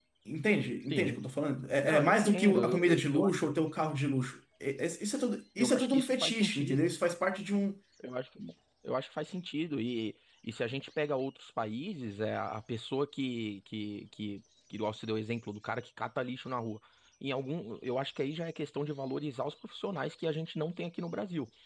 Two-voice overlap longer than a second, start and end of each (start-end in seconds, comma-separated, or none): 1.8-3.3, 5.6-6.9